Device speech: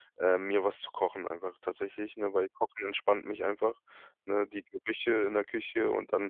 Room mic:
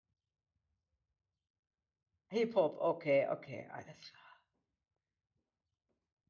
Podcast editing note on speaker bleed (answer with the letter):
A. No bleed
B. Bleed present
A